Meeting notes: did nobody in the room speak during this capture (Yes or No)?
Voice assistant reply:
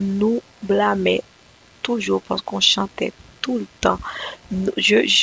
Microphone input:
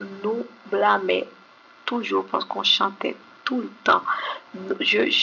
Yes